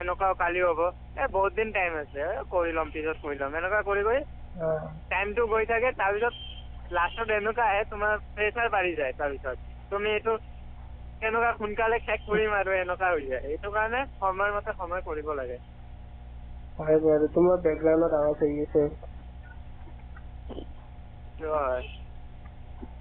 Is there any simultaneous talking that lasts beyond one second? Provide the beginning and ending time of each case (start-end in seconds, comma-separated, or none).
none